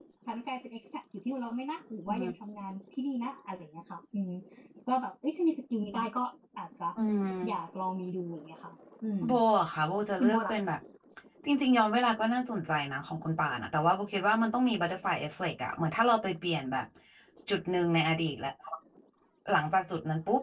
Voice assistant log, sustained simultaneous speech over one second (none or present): none